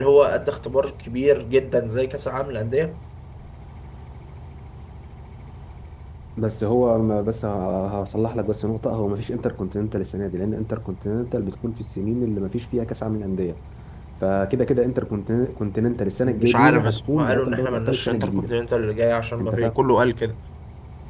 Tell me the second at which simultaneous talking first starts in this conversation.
16.2 s

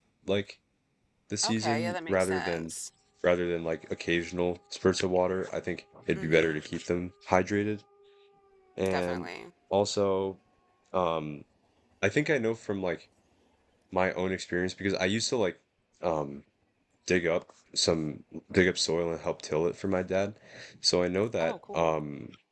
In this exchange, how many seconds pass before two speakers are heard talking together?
1.4 s

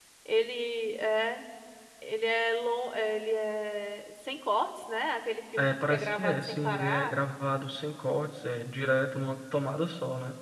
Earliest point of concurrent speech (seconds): 5.6 s

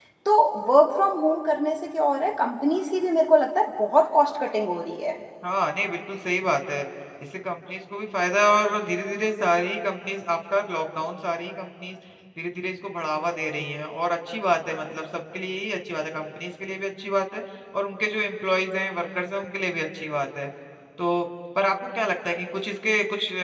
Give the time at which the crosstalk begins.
none

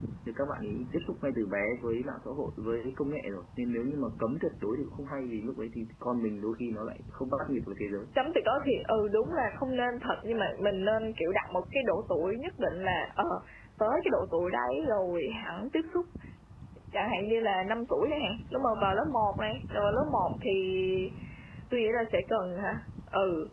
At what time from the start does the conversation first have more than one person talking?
none

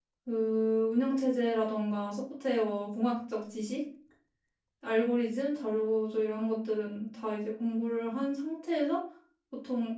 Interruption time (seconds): none

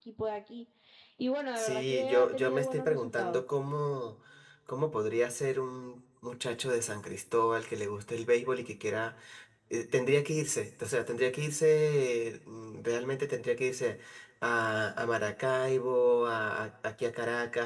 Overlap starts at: 1.6 s

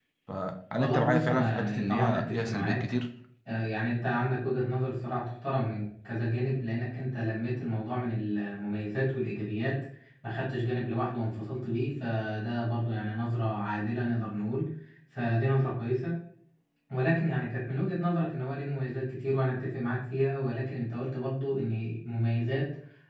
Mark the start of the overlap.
0.8 s

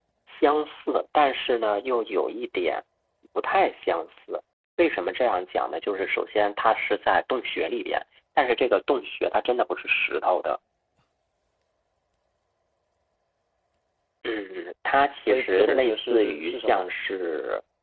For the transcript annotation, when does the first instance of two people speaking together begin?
15.3 s

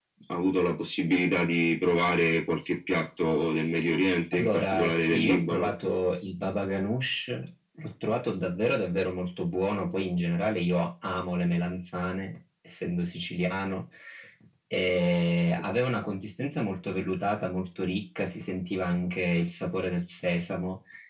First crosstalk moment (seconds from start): 4.3 s

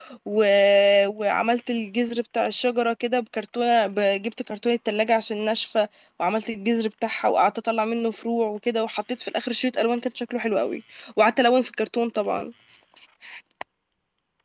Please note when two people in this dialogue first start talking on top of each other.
none

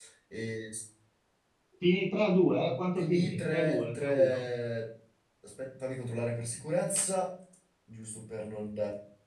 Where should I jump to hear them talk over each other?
3.0 s

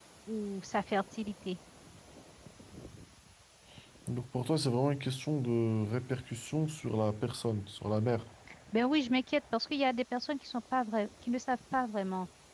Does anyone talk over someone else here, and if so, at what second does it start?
none

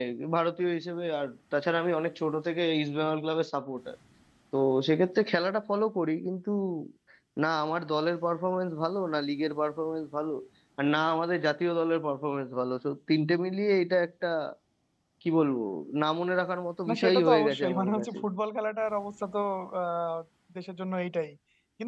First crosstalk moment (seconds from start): 16.9 s

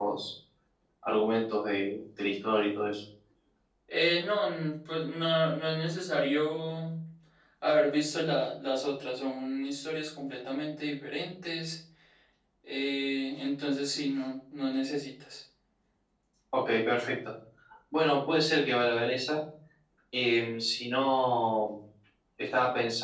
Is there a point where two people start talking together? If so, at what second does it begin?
none

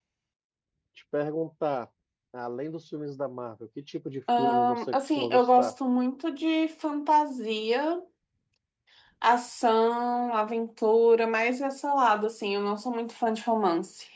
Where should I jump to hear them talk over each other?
4.3 s

